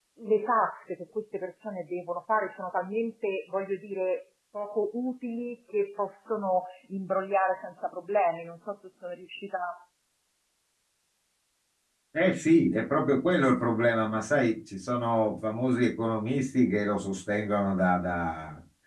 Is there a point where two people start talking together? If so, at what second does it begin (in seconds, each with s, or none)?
none